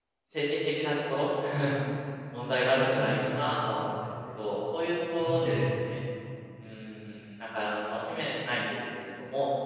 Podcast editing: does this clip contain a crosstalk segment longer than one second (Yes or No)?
Yes